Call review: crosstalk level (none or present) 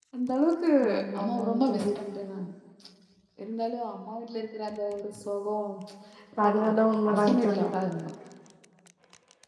present